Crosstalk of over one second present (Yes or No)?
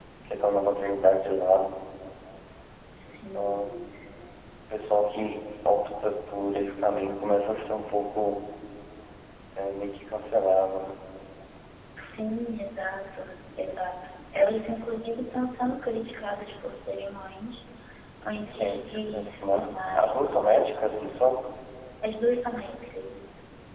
Yes